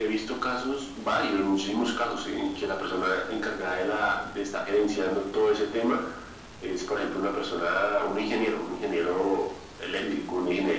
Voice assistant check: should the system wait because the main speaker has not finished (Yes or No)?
Yes